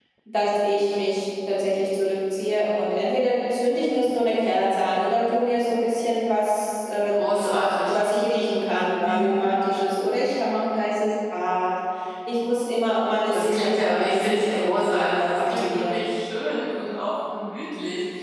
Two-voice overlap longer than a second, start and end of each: 13.3-16.0

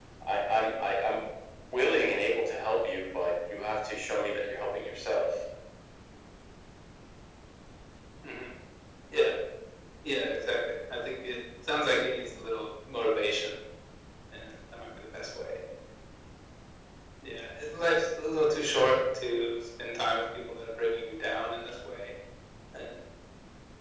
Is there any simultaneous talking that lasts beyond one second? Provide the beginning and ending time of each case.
none

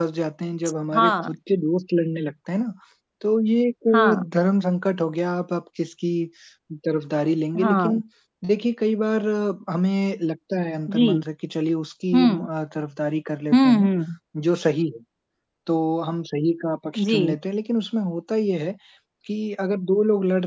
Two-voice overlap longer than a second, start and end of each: none

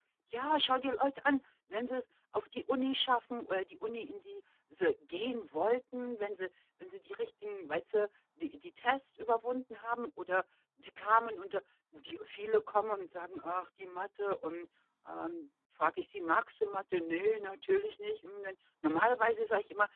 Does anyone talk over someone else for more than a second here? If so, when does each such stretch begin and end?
none

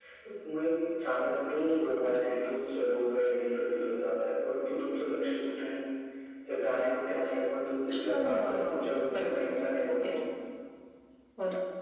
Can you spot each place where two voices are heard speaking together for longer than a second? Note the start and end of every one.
8.0-10.1

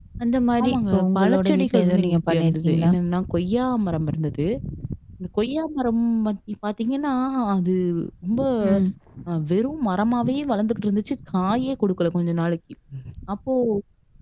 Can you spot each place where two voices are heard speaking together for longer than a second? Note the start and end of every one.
0.6-2.9

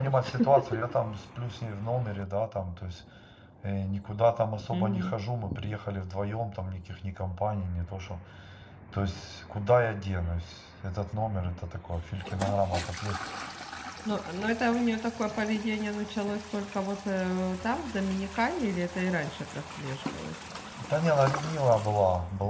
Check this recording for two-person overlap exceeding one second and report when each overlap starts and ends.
none

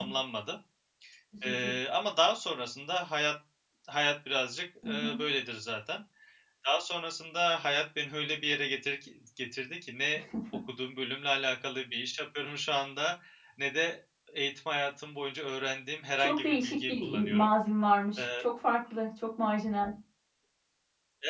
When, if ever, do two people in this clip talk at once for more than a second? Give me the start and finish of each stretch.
16.2-17.5

